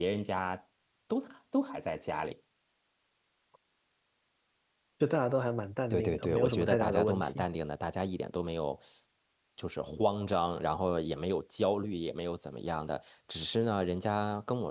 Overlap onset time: 5.9 s

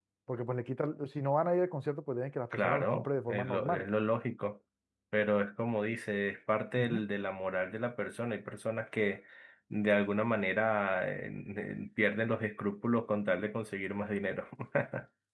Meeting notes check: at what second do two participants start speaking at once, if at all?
2.5 s

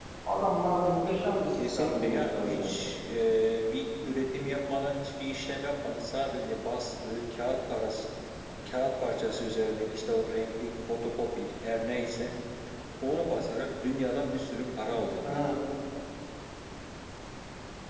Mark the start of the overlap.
1.5 s

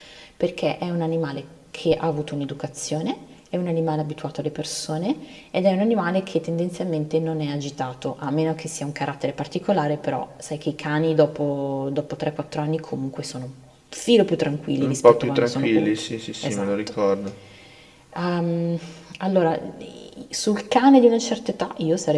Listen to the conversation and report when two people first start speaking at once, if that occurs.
14.8 s

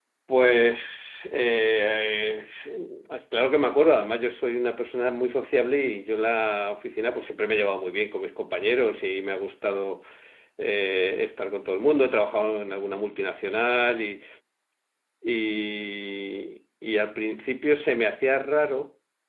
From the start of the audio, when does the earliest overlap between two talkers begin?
none

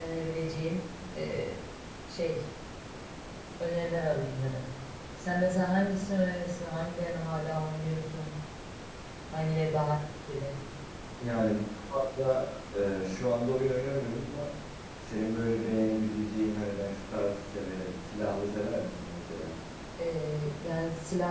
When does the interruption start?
none

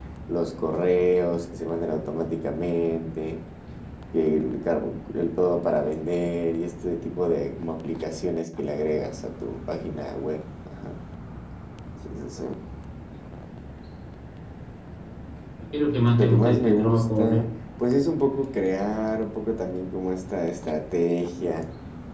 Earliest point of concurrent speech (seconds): 16.2 s

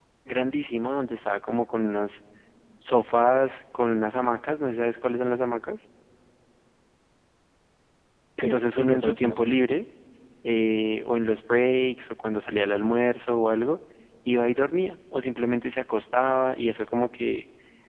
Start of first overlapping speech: 8.4 s

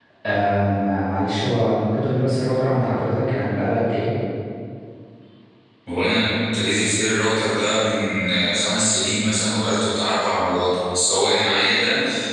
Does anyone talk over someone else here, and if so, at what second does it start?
none

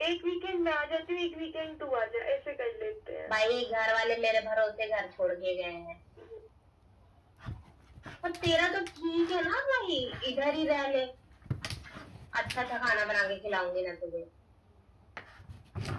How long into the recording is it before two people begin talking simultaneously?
none

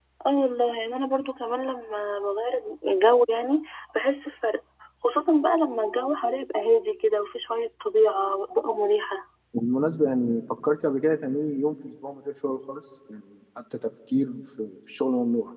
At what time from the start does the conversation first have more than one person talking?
none

